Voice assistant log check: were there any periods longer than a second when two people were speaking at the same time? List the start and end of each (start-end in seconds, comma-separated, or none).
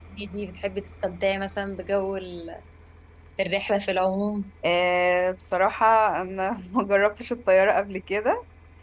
none